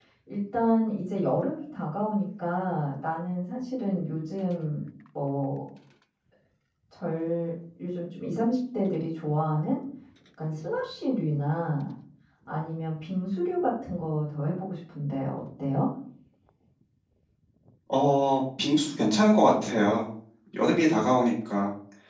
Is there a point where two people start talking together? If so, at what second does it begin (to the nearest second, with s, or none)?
none